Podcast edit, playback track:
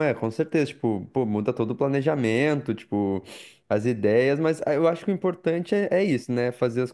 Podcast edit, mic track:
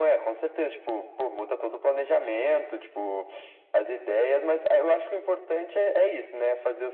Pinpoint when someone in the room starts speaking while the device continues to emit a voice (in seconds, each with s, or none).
none